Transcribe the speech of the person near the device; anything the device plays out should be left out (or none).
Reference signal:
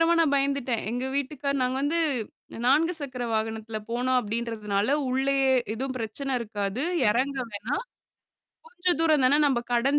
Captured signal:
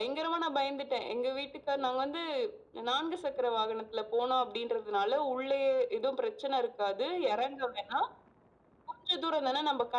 none